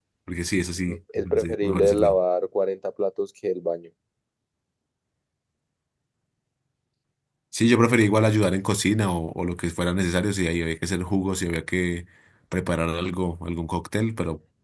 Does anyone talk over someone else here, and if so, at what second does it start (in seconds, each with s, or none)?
0.9 s